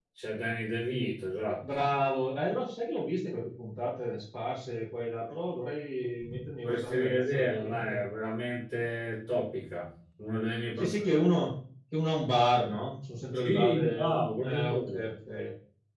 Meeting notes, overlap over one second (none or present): present